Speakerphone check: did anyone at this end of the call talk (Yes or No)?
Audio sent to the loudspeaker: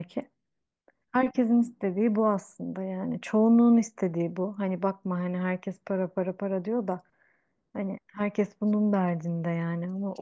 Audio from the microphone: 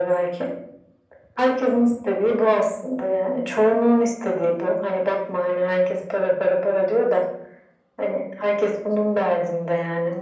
No